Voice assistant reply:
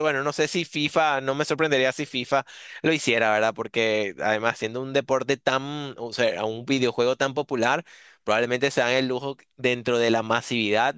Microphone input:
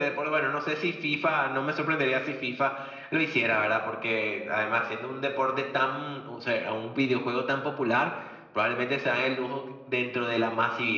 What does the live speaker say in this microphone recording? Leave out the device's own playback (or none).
none